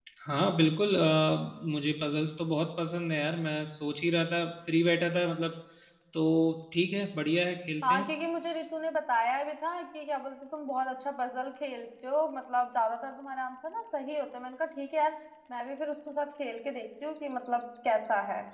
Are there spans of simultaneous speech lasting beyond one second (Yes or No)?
No